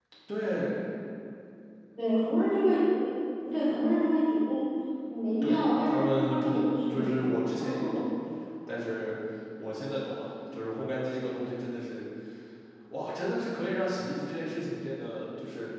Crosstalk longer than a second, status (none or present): present